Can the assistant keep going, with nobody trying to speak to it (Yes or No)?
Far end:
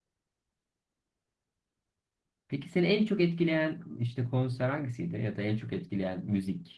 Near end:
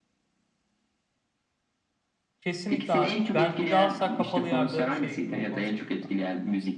No